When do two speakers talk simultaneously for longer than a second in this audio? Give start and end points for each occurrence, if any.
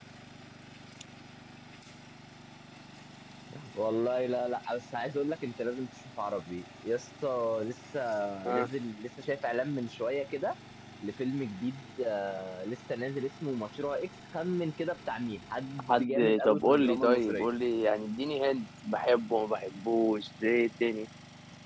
15.9-17.5

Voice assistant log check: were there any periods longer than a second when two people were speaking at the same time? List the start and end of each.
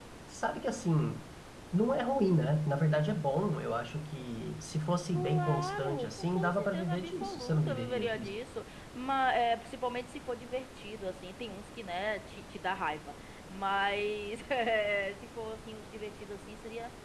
5.1-8.3

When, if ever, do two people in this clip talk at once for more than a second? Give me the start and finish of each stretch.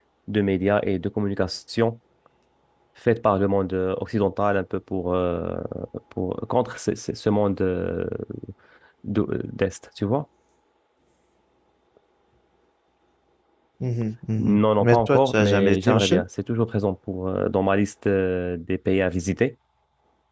14.4-16.2

